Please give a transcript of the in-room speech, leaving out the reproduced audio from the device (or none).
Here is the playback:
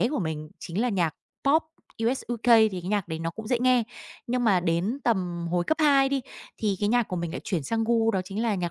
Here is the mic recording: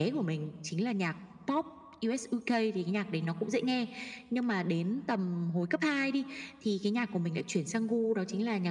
none